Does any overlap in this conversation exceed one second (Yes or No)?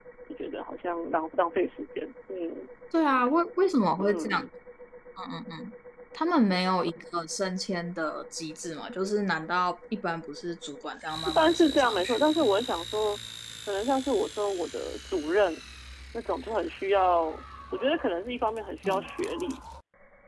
Yes